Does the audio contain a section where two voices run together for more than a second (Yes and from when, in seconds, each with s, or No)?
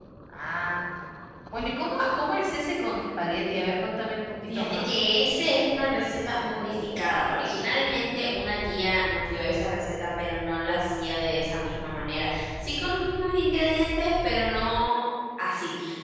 No